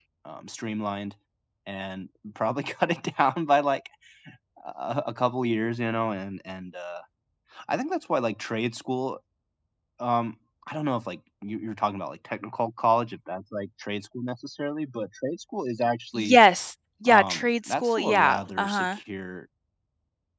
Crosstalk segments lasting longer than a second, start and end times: 17.1-19.0

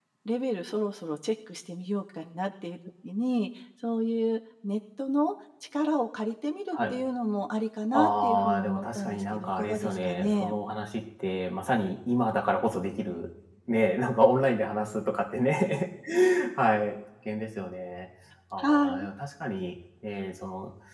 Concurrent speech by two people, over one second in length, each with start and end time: 7.9-10.5

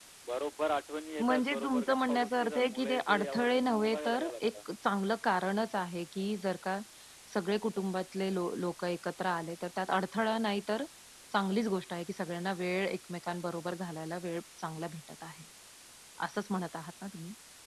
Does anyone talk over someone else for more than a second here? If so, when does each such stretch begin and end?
1.2-4.4

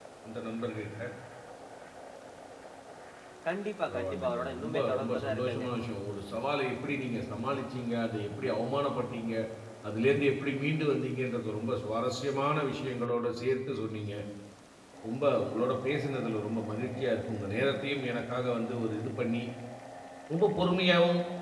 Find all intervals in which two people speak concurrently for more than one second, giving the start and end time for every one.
3.9-5.7

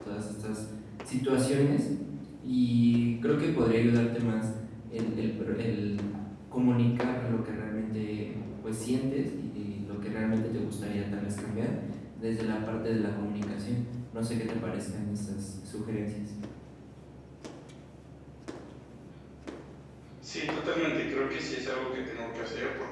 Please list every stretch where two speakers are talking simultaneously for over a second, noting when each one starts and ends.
none

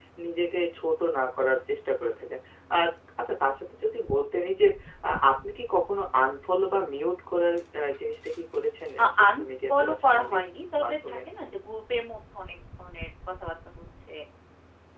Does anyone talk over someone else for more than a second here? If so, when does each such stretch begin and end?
9.0-10.4

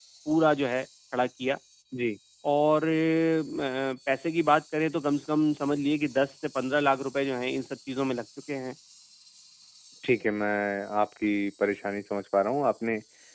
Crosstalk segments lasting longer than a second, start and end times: none

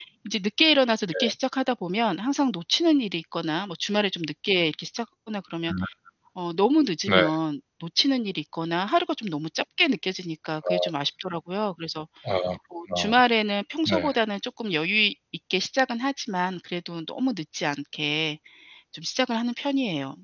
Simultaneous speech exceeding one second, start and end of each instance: none

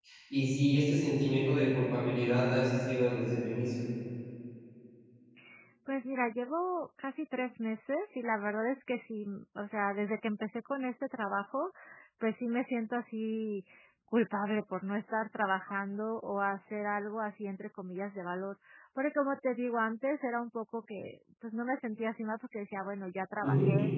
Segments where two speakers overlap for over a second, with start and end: none

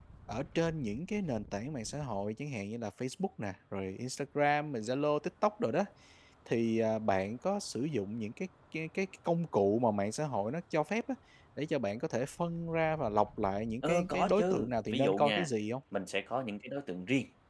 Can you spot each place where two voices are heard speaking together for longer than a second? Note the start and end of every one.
13.8-15.5

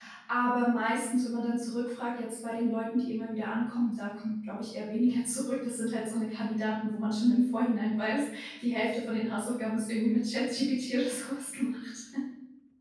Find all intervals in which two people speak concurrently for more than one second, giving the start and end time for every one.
none

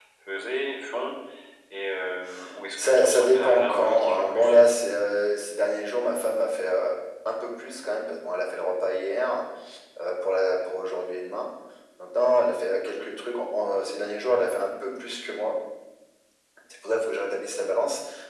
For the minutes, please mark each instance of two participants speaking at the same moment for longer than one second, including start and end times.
2.8-4.5

